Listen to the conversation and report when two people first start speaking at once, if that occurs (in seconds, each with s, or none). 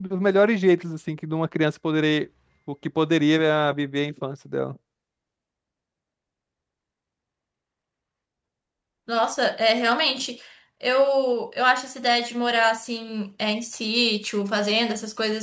none